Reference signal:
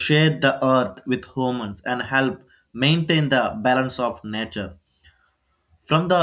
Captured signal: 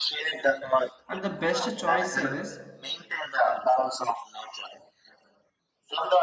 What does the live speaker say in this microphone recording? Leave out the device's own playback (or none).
And the best choice is